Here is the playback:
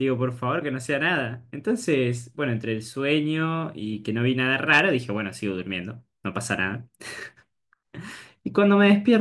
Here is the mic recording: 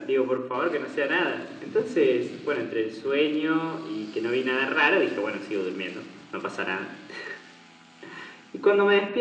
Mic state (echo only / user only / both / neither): echo only